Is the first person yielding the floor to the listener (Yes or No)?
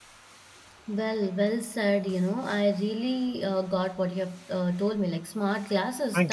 No